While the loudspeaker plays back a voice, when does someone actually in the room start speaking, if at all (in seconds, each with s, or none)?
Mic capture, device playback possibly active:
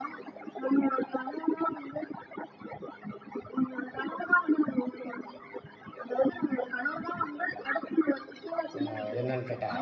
8.8 s